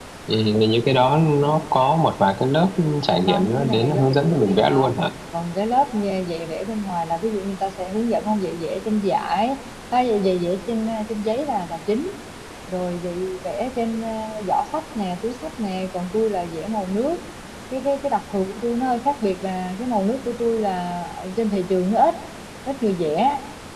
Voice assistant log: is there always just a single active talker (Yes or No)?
No